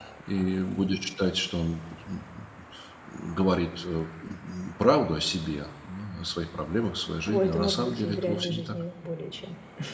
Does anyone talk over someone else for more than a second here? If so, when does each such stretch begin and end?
7.2-8.8

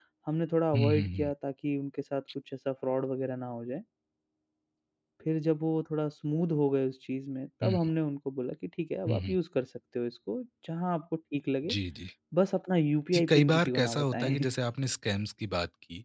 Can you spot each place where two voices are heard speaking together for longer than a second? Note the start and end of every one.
13.1-14.4

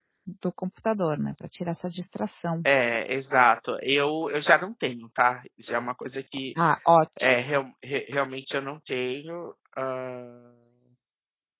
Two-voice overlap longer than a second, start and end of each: none

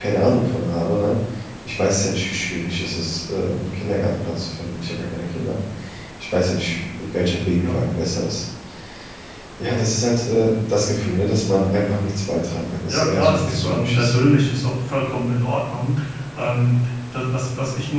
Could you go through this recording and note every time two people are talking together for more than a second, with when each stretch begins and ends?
12.9-14.2

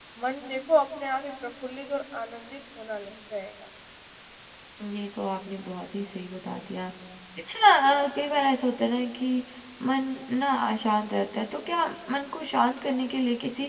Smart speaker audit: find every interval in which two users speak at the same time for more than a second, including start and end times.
none

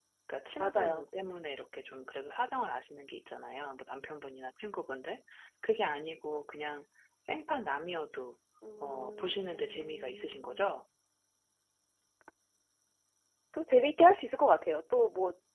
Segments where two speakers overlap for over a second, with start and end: 8.8-10.8

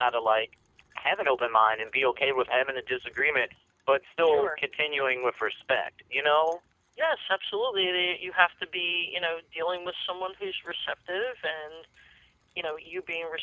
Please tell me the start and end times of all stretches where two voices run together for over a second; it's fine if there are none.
none

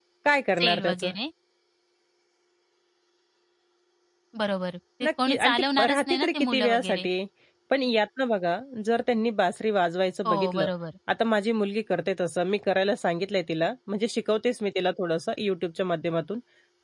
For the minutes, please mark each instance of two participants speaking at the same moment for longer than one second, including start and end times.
5.0-7.1

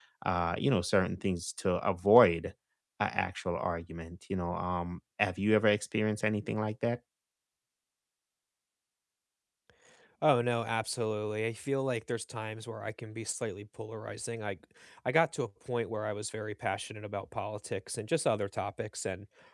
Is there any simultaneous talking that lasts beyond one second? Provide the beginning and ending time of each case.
none

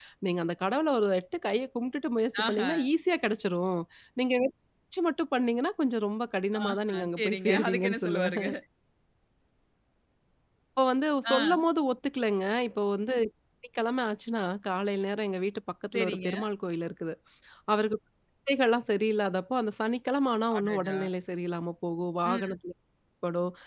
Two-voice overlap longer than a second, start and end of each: 6.6-8.5

